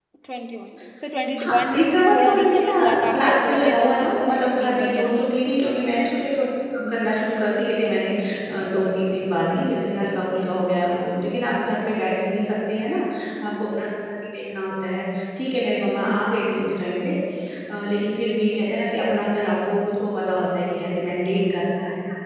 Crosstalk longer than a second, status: present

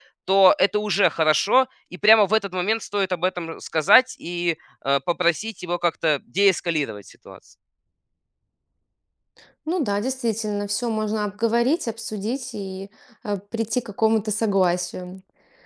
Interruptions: none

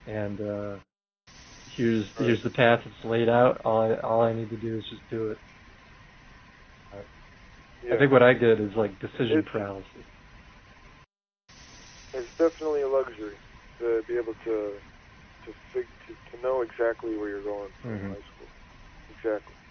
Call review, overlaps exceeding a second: none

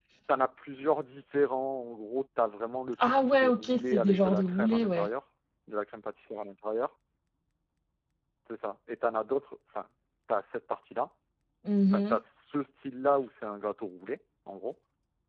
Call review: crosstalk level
present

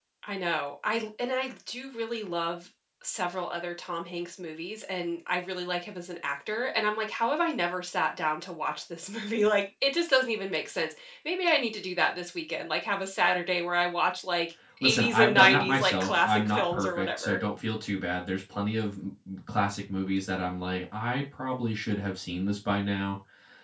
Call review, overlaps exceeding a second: present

